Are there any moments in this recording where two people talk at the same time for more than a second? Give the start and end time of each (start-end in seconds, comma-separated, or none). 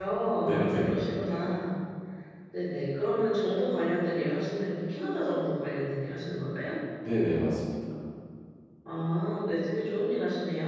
none